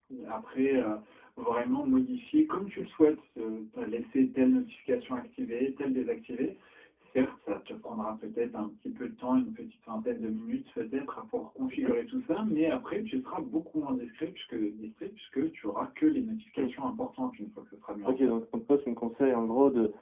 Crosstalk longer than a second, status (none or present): none